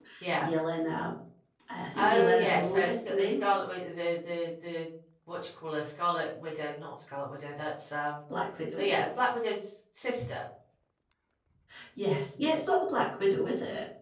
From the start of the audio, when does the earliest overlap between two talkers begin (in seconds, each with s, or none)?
1.9 s